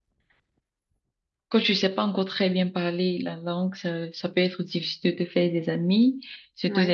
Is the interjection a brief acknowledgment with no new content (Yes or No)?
Yes